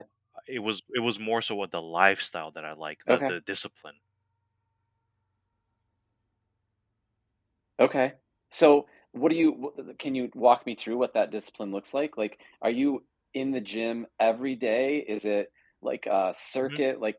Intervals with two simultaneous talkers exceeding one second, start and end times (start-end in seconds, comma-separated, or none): none